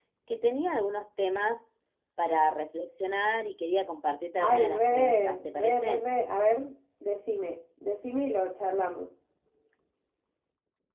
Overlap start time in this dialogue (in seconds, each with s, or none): 4.4 s